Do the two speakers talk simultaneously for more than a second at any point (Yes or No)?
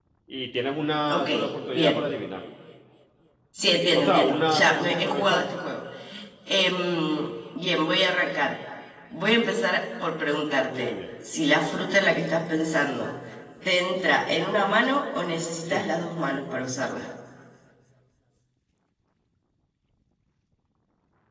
Yes